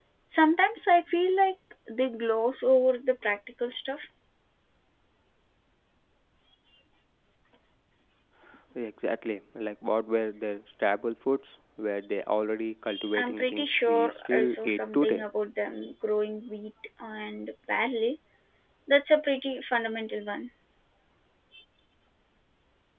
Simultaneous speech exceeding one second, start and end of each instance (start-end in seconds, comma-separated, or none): 13.2-15.3